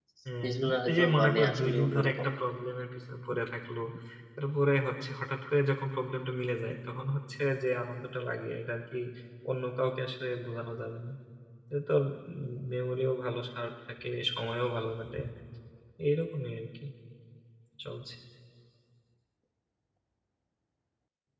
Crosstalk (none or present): present